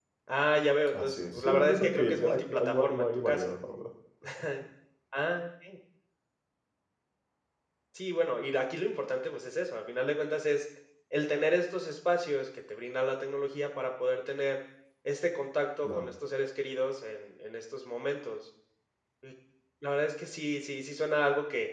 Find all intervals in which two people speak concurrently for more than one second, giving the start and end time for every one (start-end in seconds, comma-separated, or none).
0.9-3.5